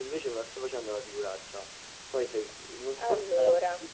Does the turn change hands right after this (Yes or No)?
No